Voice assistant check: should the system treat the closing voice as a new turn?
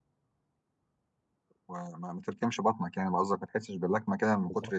Yes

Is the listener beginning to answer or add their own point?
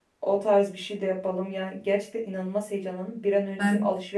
No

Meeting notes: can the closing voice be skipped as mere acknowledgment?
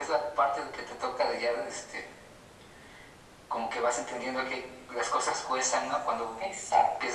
Yes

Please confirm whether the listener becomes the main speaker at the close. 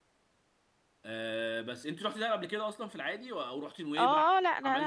Yes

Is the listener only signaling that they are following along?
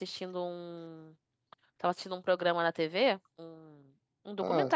Yes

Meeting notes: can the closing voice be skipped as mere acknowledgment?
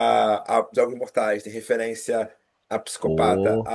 Yes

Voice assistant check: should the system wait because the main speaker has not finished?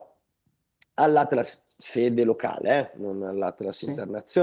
Yes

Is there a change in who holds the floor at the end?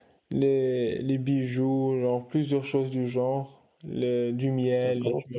Yes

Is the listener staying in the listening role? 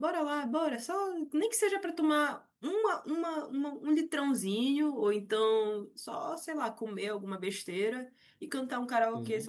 Yes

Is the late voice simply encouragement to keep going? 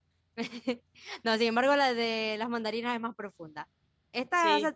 Yes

